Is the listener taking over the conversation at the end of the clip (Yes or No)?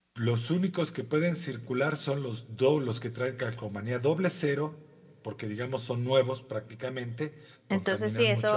Yes